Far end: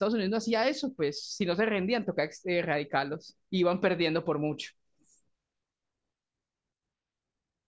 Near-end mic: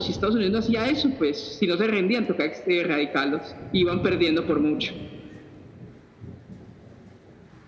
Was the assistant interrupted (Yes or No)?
No